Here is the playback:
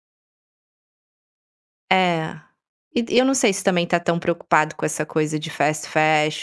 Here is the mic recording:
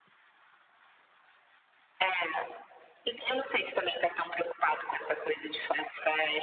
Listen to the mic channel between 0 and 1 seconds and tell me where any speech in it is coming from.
neither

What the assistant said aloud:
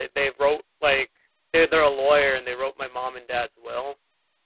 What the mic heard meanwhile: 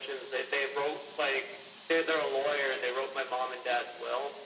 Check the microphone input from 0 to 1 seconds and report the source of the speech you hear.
echo only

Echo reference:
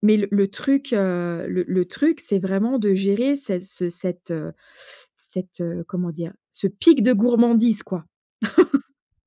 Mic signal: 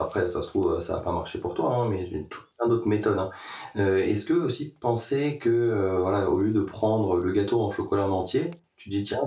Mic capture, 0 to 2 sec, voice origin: user only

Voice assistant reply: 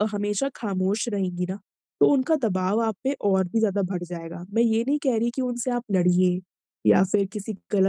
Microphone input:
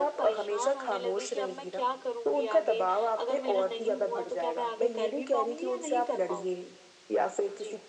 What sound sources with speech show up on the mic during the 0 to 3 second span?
both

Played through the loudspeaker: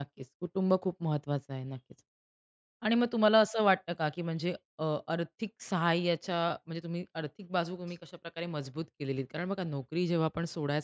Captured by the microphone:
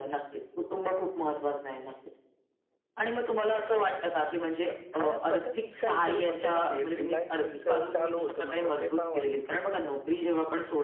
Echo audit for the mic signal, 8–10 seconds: both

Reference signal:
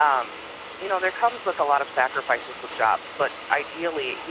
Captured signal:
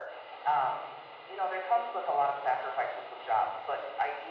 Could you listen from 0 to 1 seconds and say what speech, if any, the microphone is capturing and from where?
echo only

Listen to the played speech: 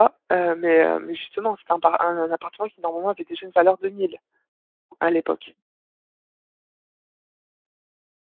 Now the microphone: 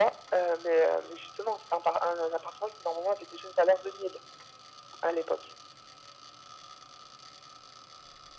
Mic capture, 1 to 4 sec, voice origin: echo only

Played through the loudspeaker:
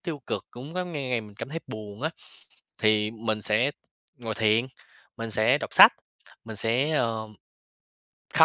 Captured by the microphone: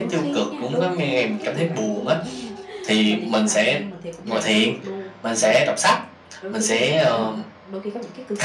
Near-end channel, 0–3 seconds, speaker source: both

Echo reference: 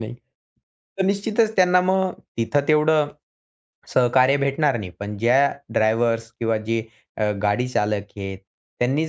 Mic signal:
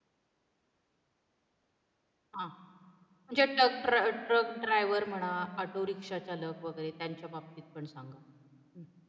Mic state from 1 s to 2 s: neither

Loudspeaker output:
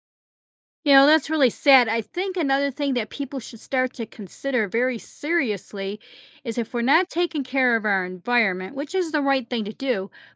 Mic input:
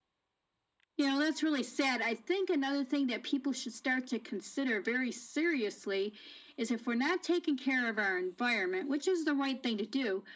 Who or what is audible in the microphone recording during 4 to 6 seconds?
echo only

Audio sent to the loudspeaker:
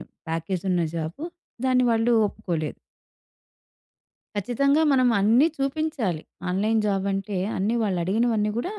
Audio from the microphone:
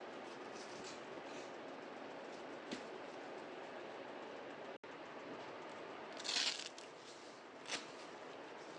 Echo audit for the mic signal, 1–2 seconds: neither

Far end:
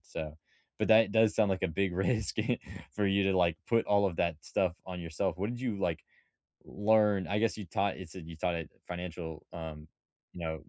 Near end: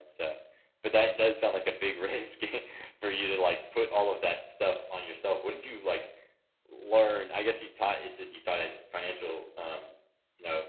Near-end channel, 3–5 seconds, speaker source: echo only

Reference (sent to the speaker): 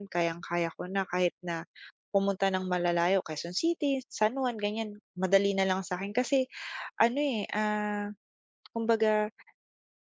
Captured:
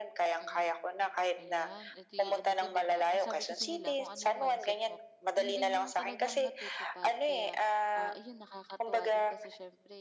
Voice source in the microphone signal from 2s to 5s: both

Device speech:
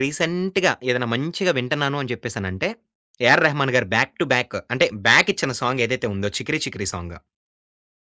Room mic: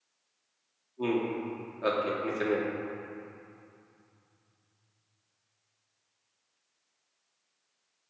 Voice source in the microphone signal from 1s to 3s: user only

